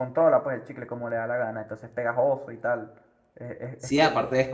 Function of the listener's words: taking over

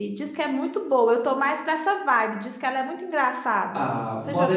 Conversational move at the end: taking over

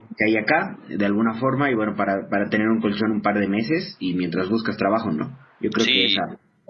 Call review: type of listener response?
listening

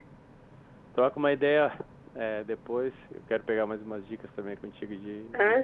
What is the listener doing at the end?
taking over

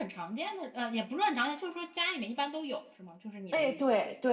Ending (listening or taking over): taking over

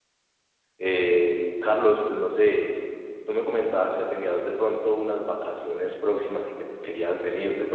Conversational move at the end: listening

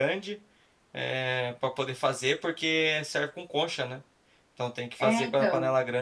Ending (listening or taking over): listening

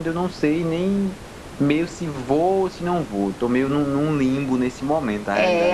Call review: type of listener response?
taking over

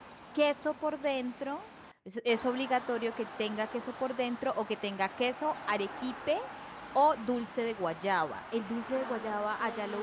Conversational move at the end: taking over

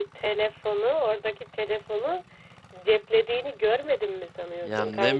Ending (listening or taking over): taking over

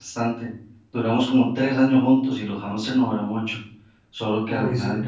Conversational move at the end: listening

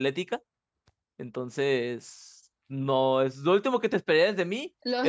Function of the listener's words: taking over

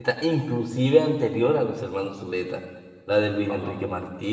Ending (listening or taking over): listening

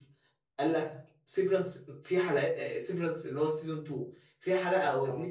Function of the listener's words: listening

